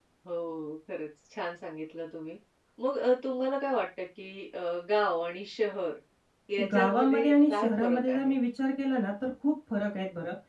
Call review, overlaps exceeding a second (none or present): present